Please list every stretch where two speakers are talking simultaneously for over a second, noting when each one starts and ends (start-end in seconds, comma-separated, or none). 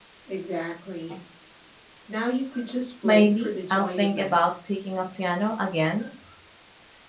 3.0-4.3